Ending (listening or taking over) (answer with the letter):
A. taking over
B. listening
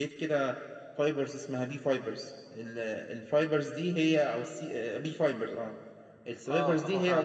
A